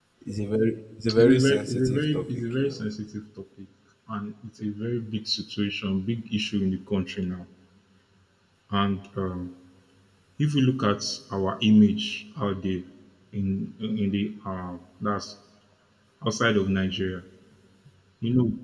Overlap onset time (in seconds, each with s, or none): 1.1 s